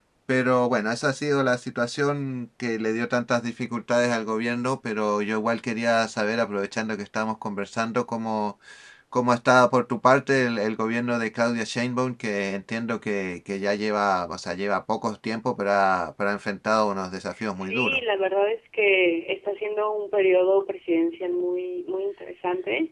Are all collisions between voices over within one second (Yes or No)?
Yes